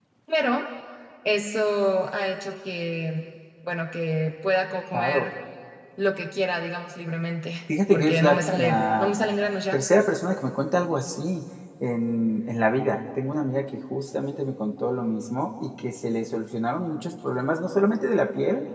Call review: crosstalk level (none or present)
present